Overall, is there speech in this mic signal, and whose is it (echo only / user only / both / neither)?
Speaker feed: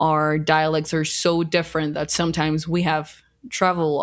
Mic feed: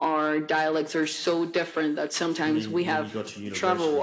both